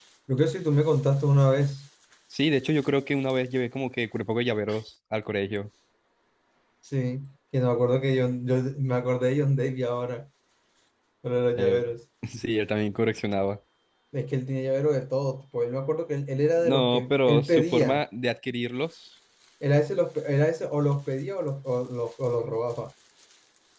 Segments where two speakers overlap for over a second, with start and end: 16.6-18.0

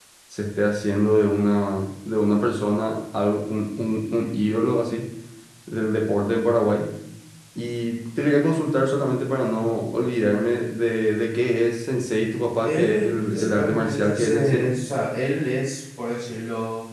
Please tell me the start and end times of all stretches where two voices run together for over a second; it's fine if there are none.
12.6-14.7

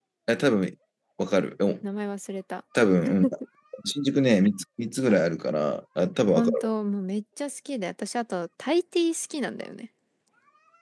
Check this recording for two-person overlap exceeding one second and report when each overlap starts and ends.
none

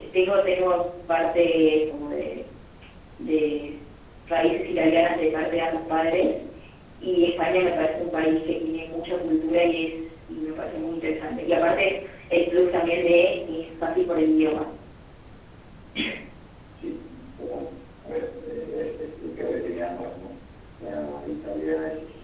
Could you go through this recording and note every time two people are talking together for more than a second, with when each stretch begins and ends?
none

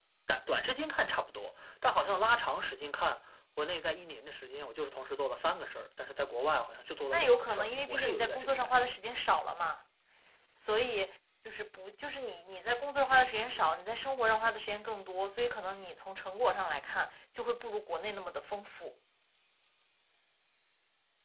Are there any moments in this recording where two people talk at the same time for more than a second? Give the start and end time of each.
7.1-8.9

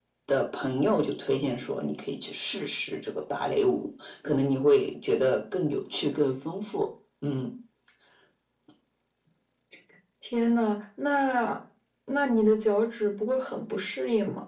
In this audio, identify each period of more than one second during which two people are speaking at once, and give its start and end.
none

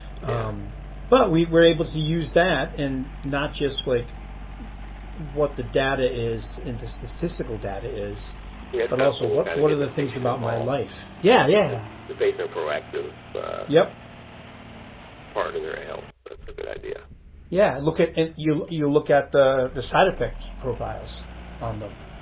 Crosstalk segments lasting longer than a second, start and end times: 8.9-10.7

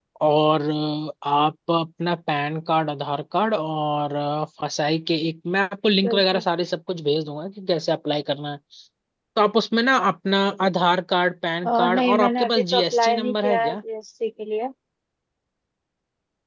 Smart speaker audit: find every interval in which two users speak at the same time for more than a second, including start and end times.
11.8-13.8

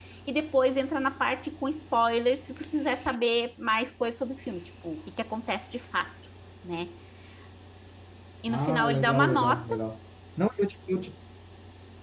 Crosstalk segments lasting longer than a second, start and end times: 8.5-9.8

